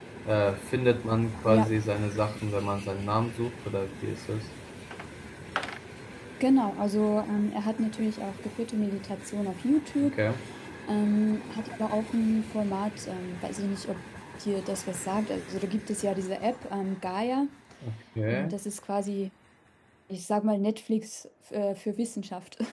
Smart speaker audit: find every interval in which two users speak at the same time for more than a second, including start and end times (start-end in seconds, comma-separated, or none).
none